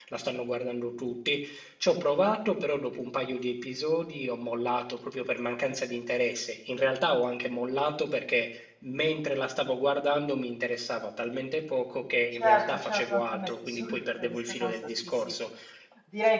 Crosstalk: present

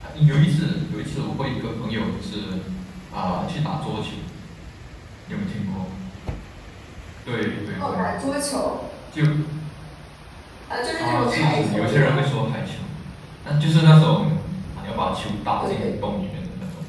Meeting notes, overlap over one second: present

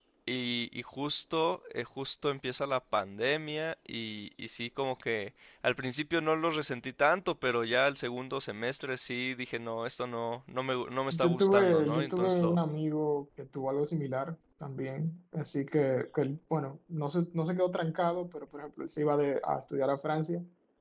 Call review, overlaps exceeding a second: present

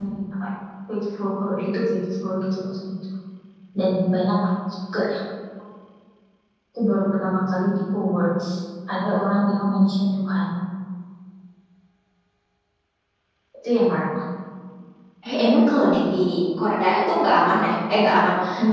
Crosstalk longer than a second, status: none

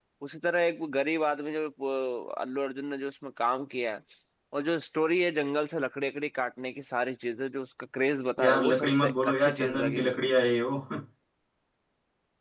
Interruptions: present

